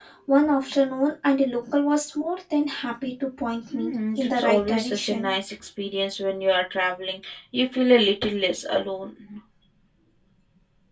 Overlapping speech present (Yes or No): Yes